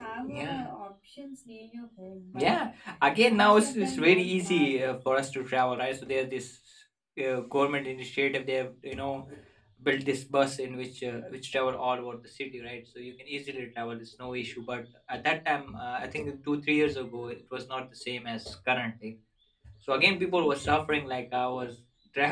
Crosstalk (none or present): present